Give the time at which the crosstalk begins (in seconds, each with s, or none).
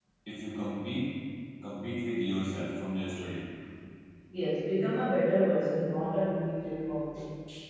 none